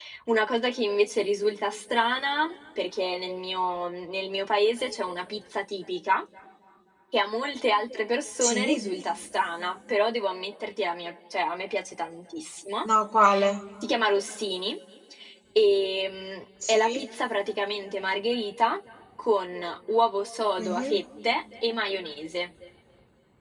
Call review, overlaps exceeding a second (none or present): none